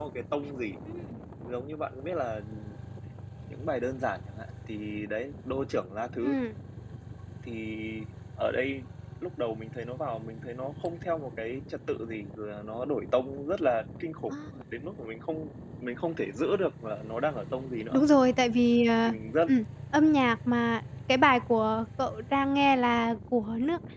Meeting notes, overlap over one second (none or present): none